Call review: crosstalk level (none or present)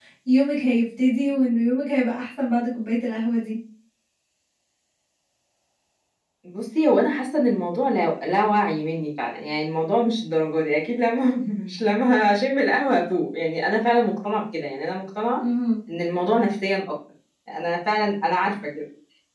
none